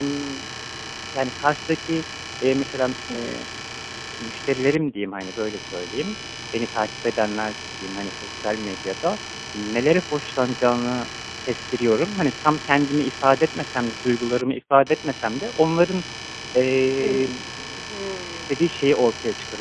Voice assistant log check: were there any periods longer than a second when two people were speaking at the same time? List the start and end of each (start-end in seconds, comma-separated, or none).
none